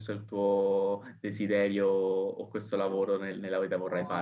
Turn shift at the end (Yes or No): No